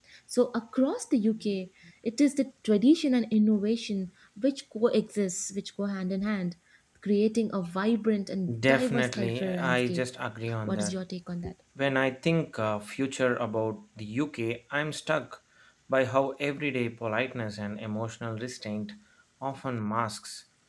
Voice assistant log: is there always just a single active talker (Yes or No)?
No